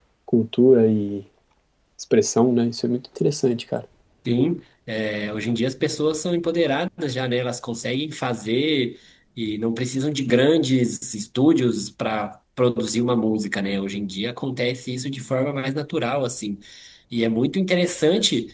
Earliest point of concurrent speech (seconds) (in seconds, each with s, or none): none